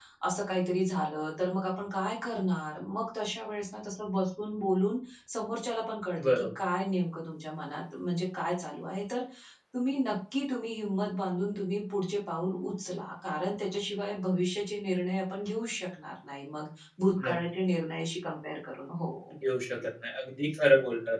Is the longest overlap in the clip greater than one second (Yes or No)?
No